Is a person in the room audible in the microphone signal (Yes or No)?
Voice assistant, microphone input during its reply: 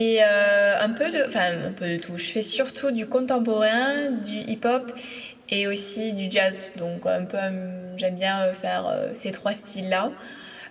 Yes